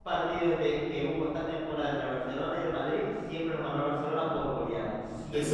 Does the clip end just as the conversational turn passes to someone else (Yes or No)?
Yes